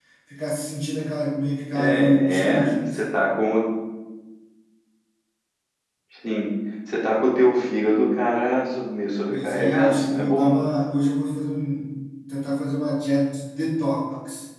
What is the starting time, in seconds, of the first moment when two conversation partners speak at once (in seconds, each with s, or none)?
1.8 s